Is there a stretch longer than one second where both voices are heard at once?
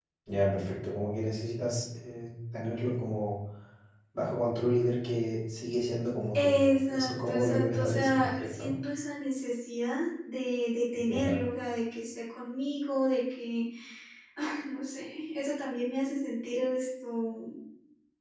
Yes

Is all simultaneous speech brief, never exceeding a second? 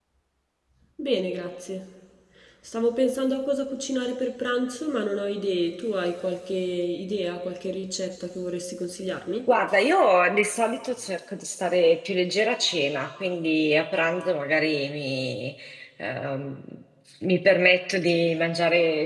Yes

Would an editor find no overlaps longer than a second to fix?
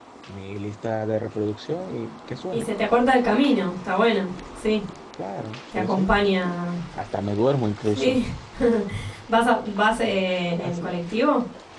Yes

